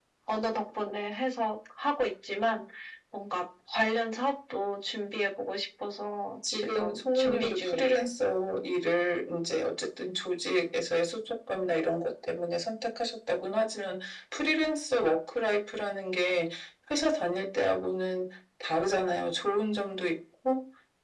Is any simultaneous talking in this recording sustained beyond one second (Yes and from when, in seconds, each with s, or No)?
Yes, from 6.4 s